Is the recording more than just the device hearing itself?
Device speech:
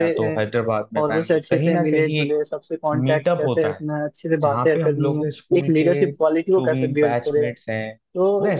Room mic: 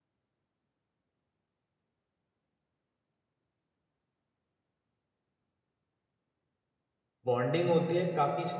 Yes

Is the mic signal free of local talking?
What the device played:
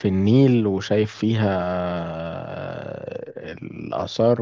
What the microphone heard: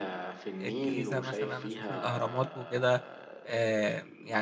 No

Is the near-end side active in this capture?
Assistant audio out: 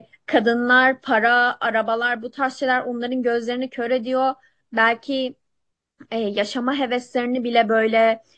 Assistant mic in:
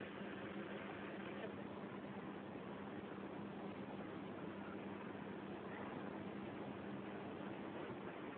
No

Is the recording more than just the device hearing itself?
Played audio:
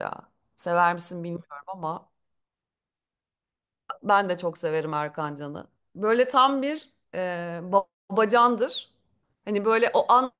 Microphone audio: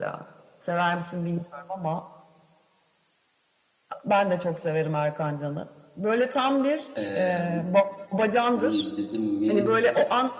Yes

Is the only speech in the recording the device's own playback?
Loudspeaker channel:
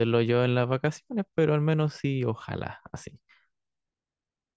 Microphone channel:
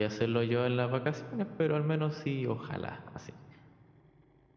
Yes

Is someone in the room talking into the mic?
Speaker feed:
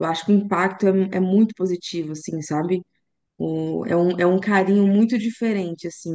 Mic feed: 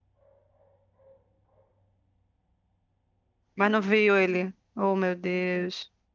Yes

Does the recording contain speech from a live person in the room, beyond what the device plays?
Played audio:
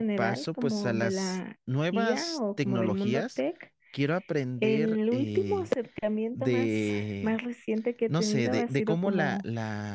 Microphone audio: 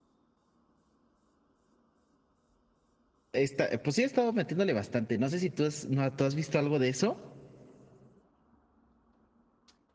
Yes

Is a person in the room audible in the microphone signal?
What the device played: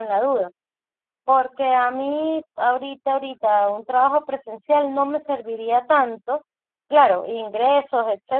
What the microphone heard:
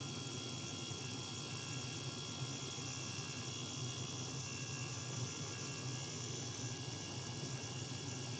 No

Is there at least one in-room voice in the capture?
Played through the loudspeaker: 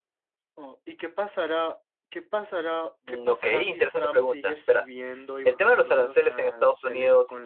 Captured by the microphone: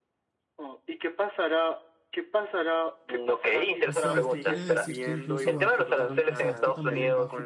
Yes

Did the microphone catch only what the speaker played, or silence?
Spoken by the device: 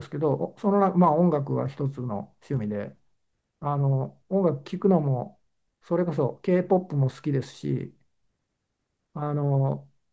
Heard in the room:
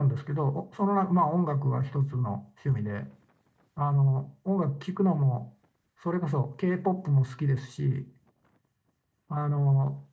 Yes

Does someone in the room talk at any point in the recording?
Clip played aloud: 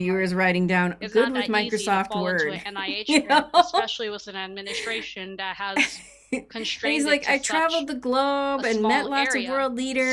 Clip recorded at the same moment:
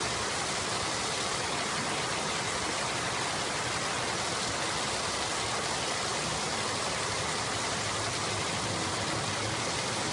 No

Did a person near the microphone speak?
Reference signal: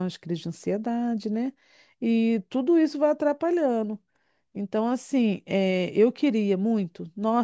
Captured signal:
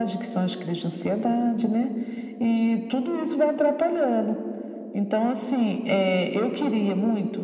No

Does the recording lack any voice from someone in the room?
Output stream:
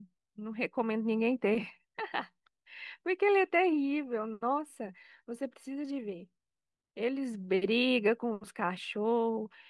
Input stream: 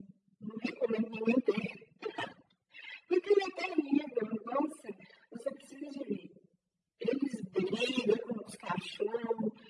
Yes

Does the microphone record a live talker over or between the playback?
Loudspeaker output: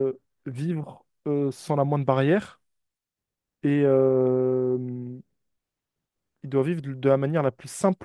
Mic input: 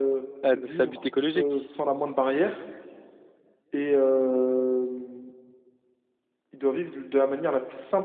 Yes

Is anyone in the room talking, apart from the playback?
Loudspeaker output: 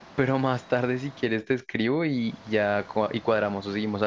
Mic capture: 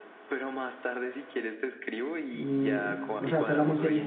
Yes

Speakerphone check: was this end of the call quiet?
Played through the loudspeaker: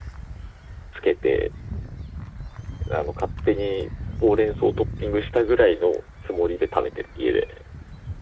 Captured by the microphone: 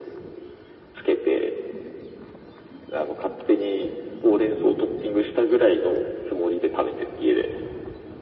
Yes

